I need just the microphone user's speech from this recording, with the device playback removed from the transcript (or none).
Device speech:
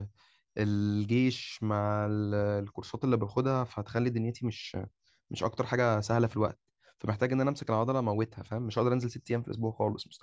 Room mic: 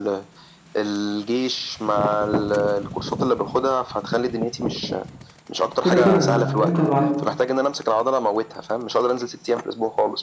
كده كده انا من امتى بعلم